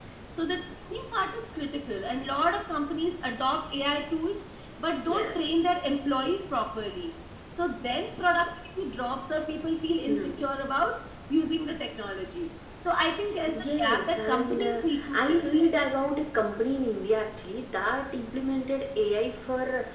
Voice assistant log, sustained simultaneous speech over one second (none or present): present